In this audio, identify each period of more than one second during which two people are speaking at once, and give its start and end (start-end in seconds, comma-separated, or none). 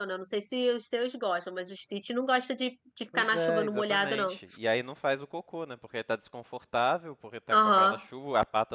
3.1-4.4